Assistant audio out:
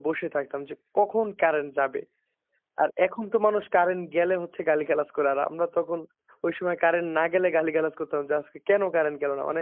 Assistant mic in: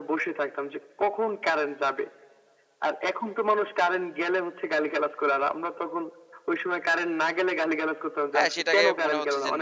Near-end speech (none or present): present